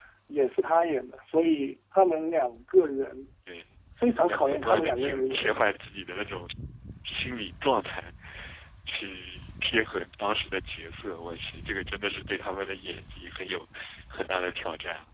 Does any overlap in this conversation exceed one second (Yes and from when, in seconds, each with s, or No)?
Yes, from 4.3 s